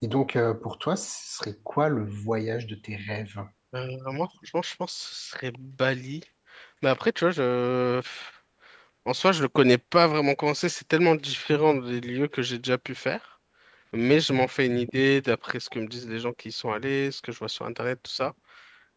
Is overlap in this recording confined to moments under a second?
Yes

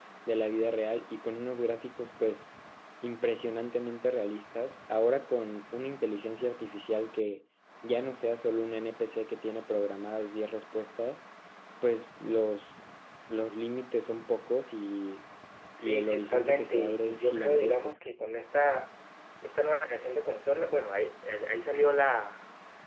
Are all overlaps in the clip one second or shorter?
No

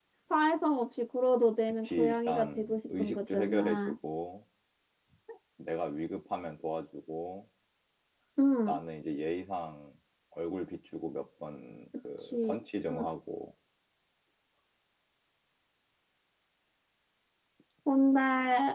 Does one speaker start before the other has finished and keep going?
Yes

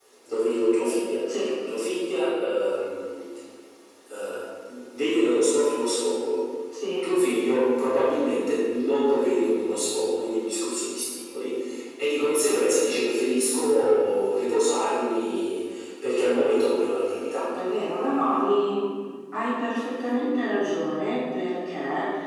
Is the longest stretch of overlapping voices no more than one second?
Yes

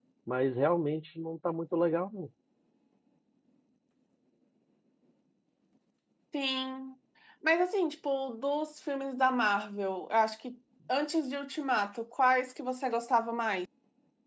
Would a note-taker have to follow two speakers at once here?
No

